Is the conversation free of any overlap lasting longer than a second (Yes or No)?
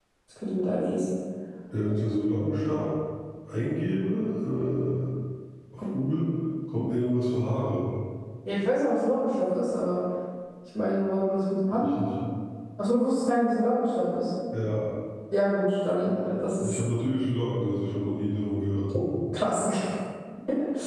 Yes